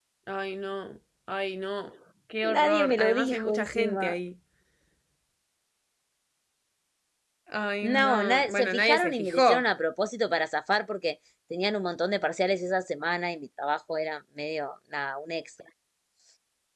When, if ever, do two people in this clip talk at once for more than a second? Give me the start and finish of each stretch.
2.4-4.2, 7.9-9.6

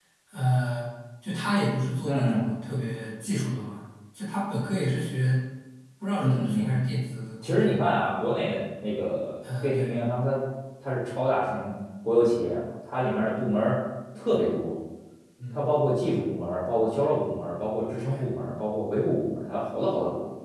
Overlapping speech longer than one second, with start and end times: none

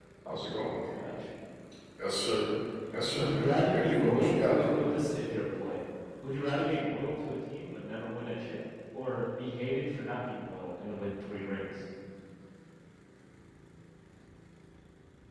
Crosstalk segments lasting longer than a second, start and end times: 3.1-4.8

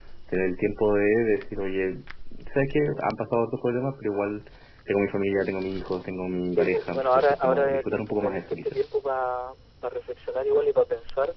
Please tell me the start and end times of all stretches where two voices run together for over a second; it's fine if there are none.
6.6-8.8

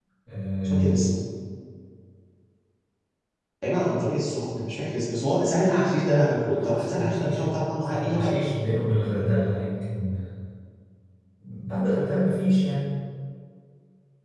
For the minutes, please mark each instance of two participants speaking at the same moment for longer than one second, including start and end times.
6.6-8.4

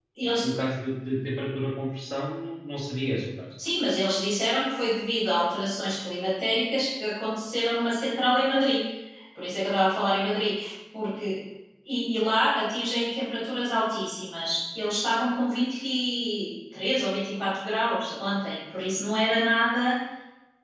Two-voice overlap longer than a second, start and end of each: none

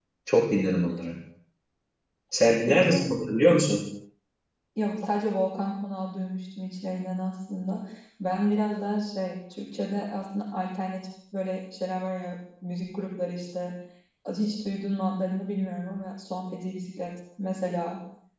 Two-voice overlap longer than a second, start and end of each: none

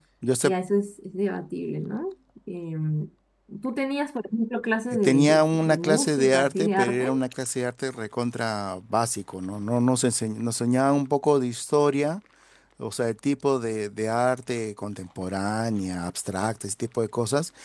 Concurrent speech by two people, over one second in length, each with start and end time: 4.9-7.1

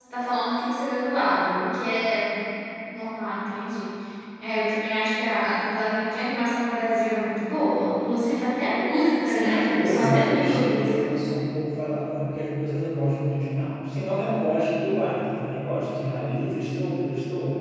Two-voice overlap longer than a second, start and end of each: 9.2-11.1

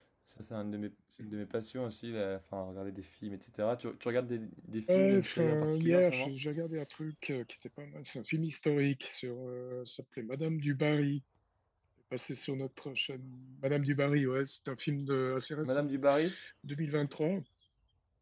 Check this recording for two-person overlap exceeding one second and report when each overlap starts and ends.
5.0-6.3

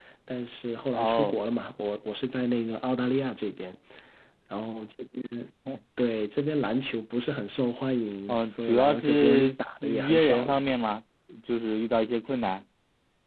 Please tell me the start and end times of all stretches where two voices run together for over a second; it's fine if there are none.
8.3-10.6

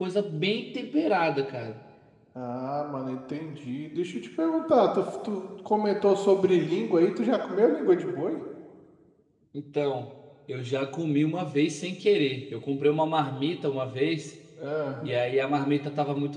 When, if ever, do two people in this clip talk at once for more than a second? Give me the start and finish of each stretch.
none

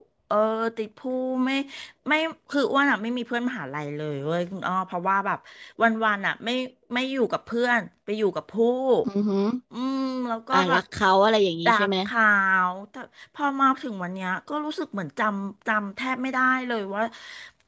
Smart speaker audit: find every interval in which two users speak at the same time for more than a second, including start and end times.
none

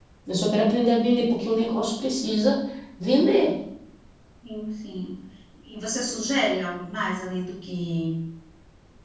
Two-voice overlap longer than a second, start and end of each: none

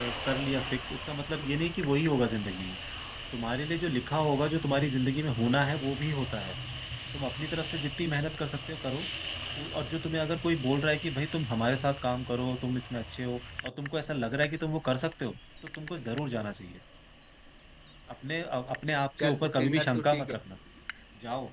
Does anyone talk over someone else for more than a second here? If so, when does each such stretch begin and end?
19.2-20.4

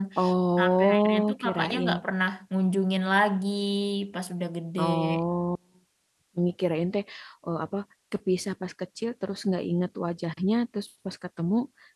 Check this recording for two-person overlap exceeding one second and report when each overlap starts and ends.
0.6-2.0

